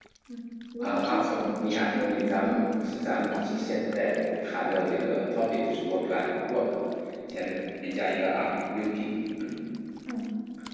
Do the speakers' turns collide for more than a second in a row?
Yes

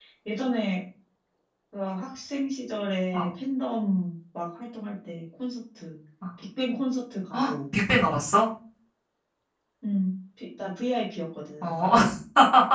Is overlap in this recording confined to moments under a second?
Yes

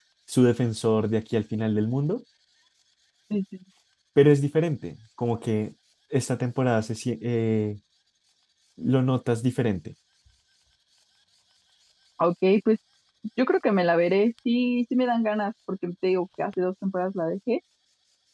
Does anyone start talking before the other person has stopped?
No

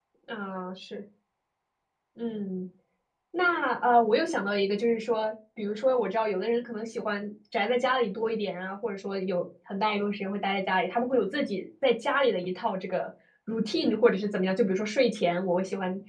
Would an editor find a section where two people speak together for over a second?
No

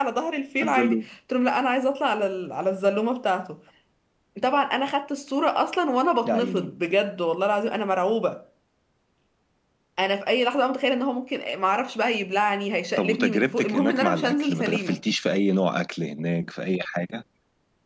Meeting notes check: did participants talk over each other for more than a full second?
Yes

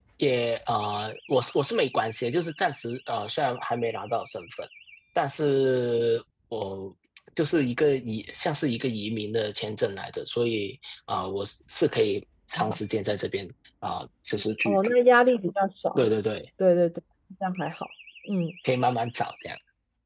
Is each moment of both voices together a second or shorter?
Yes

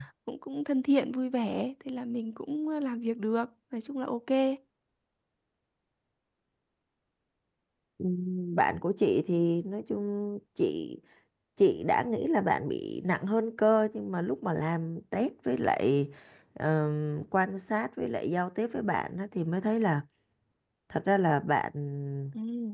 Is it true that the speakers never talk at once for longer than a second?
Yes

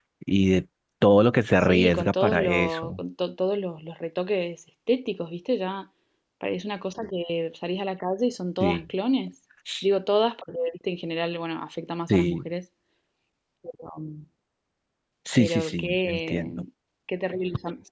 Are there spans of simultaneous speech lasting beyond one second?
Yes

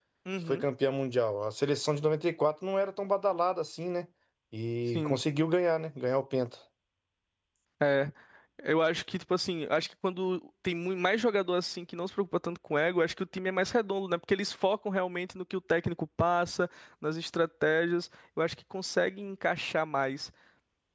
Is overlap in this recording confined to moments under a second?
Yes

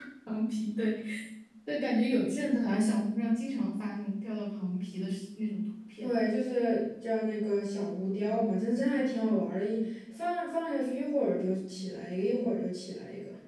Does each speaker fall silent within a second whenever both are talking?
Yes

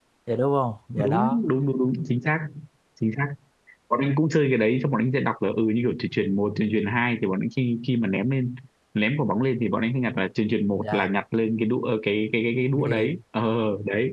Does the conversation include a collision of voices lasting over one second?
No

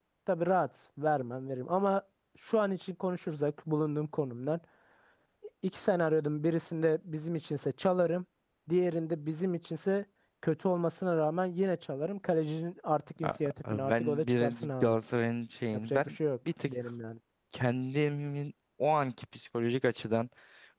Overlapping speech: Yes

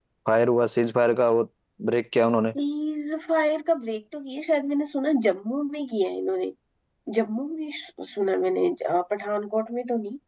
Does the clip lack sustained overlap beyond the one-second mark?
Yes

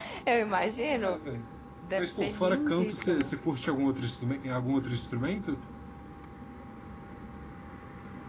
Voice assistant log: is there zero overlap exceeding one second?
No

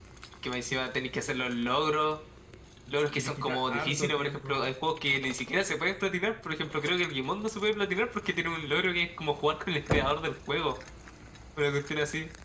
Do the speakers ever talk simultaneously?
Yes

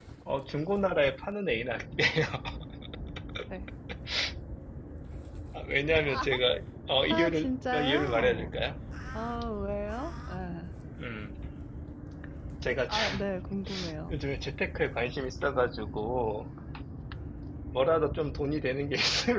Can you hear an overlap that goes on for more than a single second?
Yes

